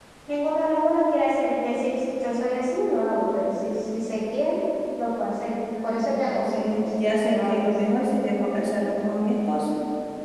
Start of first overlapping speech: 5.8 s

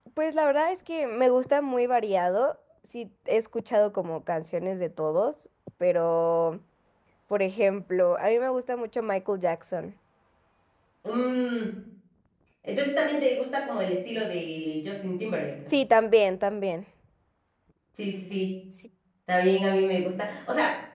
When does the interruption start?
none

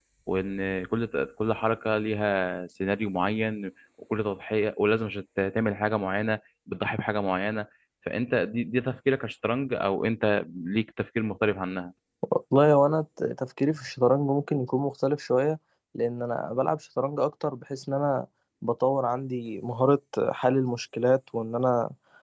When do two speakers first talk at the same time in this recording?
none

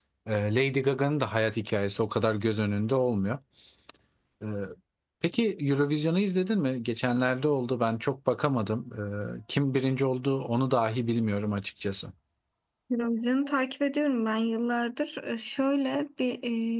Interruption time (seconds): none

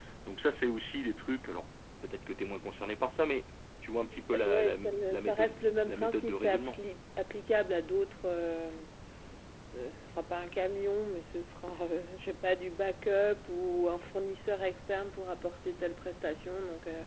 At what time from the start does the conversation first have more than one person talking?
4.3 s

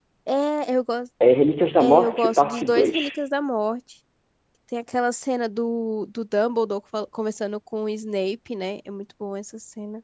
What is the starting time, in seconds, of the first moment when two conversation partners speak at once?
1.8 s

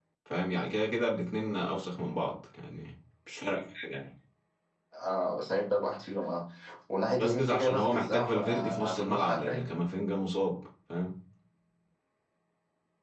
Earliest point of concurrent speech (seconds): 7.2 s

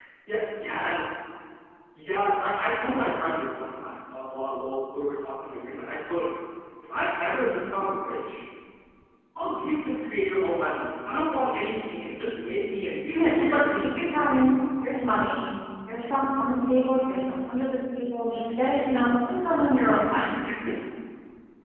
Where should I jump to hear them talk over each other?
13.1 s

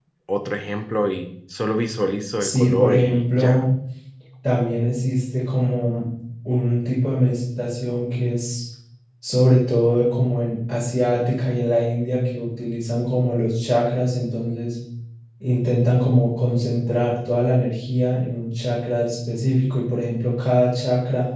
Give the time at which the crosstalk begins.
2.4 s

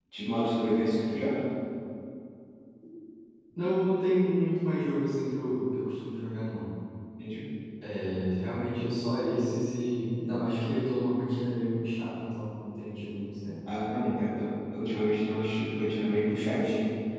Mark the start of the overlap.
none

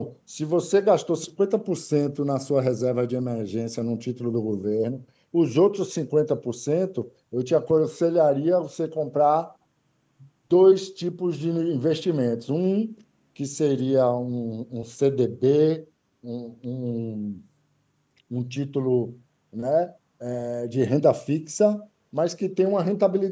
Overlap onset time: none

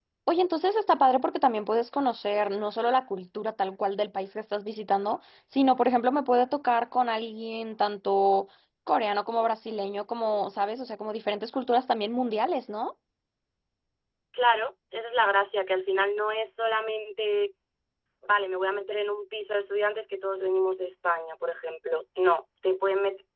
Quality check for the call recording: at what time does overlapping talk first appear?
none

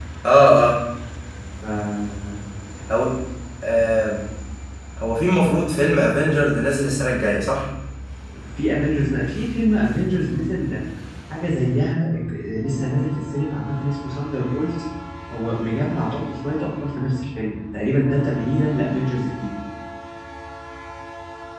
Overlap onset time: none

